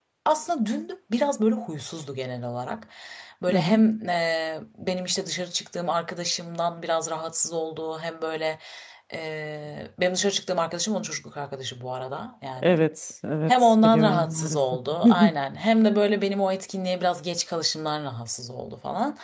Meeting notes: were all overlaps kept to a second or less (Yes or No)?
No